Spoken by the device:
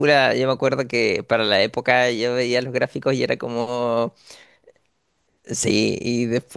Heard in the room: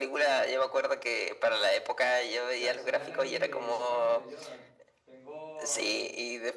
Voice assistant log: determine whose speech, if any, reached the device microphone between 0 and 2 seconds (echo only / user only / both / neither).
echo only